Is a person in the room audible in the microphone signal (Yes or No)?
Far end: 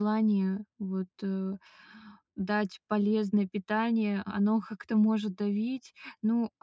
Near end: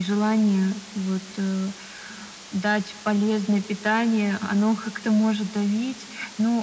No